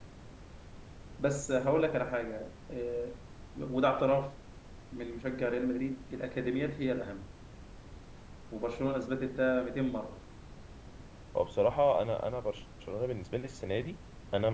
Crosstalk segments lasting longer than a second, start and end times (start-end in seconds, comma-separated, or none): none